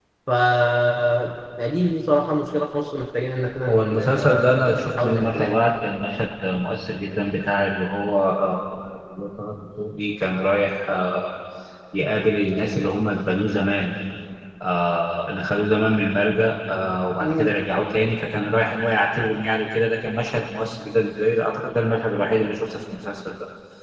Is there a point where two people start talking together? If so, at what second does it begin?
3.7 s

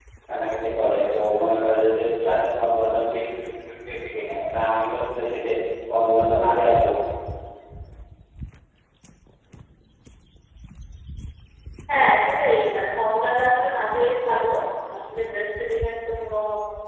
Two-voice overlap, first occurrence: none

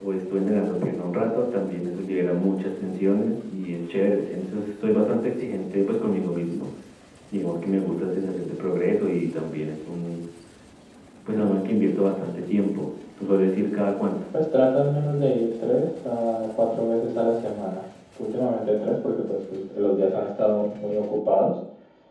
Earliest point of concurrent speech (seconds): none

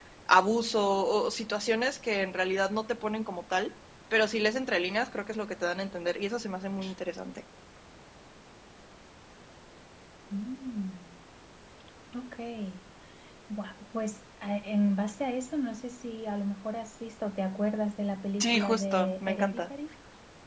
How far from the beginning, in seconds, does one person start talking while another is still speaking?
18.4 s

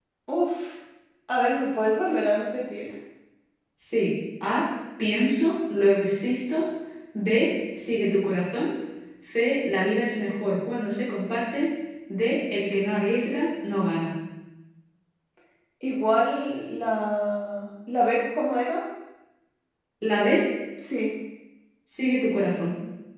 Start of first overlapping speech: none

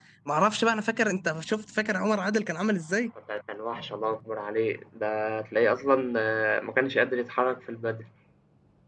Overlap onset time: none

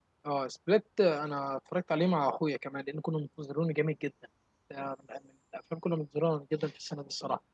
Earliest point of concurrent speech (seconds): none

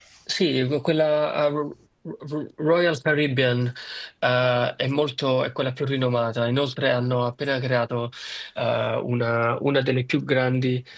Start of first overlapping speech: none

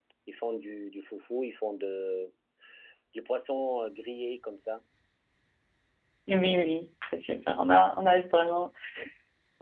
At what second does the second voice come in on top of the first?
none

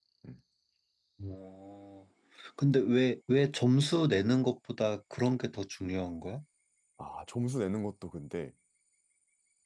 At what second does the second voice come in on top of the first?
none

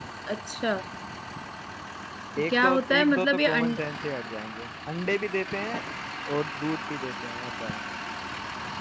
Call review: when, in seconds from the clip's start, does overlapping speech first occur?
2.5 s

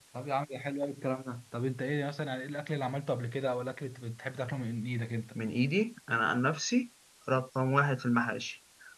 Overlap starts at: none

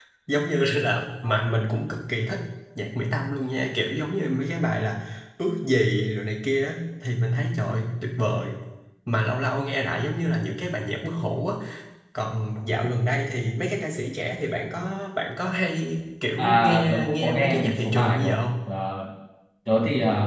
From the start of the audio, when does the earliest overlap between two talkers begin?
16.4 s

